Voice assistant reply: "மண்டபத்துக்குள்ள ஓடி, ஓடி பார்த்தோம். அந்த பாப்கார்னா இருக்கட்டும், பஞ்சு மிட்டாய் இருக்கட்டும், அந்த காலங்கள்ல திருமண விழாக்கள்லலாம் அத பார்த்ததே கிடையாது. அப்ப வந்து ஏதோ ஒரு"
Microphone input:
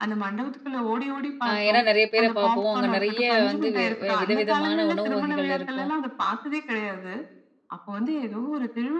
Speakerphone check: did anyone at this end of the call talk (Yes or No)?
Yes